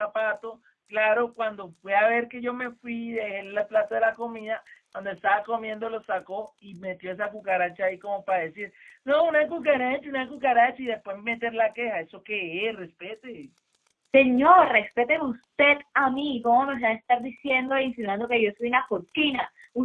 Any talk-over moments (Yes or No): No